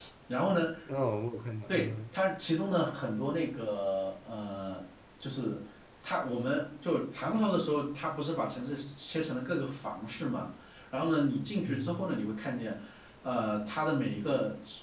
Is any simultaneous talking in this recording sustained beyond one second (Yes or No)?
No